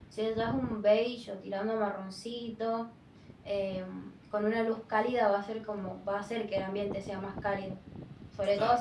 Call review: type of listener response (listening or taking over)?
listening